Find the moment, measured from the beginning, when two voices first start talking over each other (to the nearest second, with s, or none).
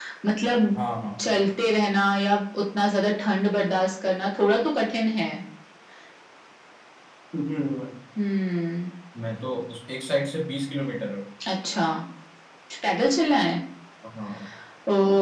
none